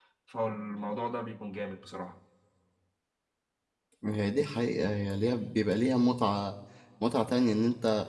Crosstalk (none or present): none